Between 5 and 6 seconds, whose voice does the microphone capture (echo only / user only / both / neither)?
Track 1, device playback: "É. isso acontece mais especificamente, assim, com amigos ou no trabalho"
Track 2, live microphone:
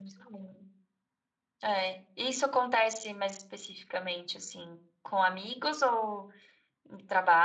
echo only